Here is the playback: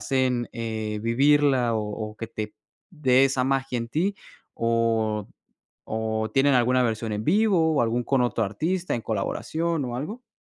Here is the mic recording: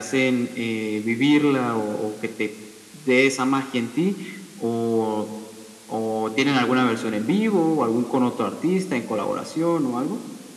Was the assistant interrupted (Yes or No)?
No